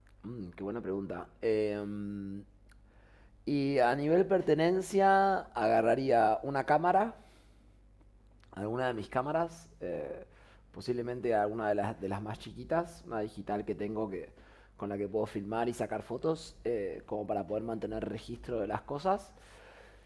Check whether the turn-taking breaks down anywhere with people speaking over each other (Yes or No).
No